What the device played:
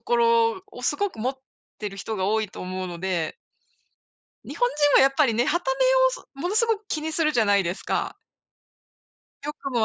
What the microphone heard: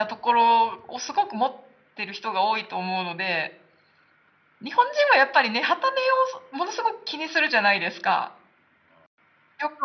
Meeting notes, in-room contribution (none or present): none